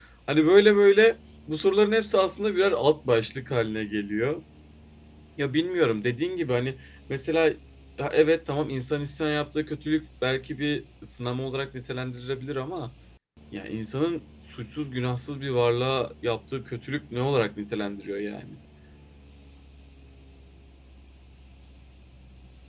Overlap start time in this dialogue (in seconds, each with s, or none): none